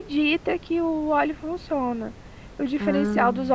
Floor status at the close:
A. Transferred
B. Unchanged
B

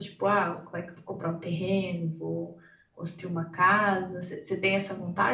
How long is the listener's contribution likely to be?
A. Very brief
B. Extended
B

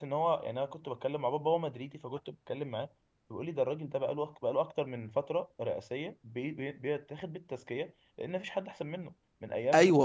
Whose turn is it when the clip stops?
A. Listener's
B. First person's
A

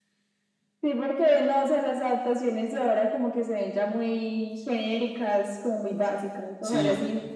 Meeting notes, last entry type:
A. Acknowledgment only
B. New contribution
B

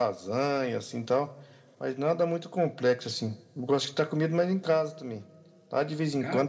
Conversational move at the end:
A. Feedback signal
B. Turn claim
A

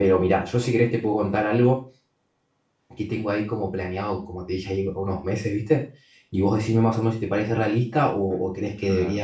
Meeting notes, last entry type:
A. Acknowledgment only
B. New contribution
A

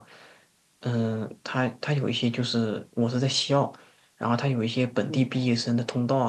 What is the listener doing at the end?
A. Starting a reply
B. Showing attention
B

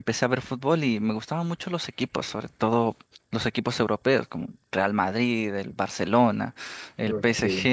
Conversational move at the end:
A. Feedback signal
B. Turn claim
A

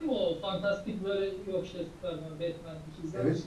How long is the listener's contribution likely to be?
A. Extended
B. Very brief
A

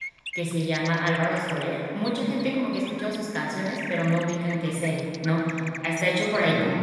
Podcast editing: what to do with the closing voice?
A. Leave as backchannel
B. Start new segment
A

